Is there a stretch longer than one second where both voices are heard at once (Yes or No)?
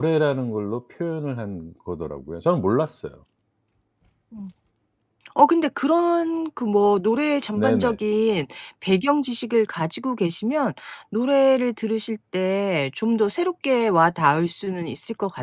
No